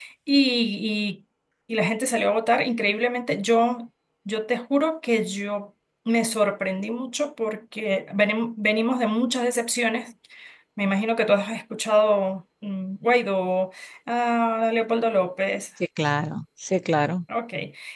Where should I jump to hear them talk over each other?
none

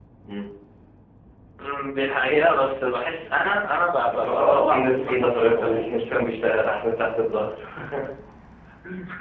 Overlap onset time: 4.1 s

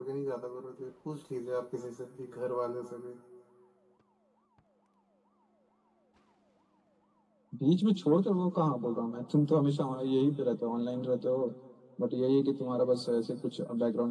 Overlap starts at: none

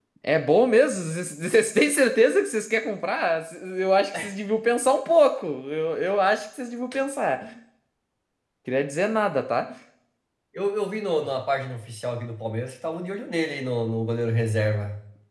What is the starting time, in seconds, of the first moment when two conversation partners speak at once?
none

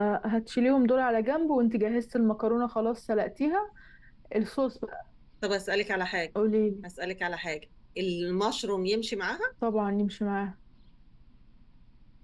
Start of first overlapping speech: none

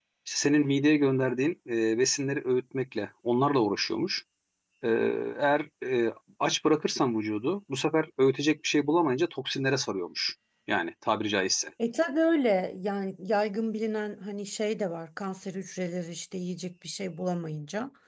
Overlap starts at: none

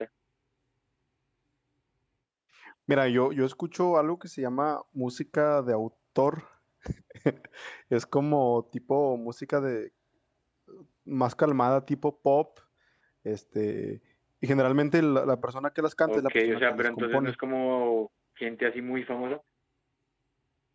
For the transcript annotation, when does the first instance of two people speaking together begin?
16.1 s

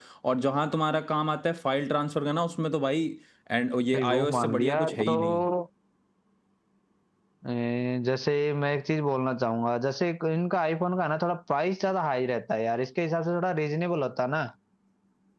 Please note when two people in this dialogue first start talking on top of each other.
3.9 s

